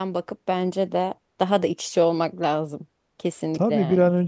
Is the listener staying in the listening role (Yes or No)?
No